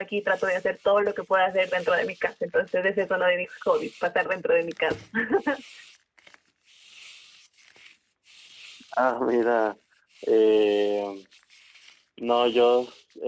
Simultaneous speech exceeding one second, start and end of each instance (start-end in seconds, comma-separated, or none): none